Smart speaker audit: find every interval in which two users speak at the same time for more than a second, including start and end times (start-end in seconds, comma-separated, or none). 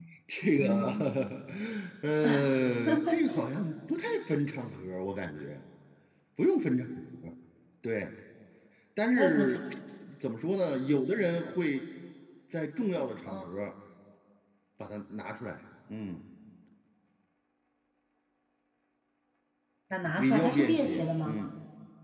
20.2-21.4